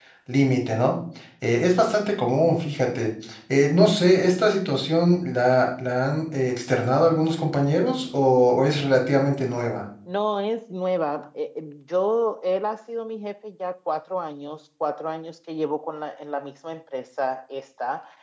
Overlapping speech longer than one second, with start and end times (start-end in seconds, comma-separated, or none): none